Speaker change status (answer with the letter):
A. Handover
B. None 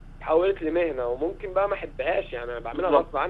A